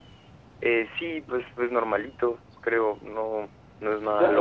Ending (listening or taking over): taking over